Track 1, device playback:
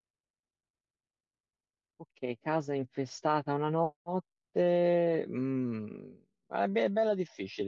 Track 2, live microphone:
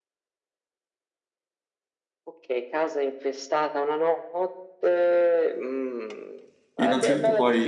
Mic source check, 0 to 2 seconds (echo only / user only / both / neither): neither